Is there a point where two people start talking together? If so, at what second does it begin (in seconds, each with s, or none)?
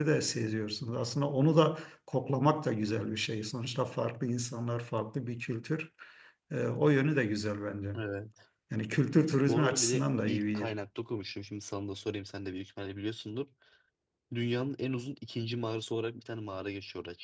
9.5 s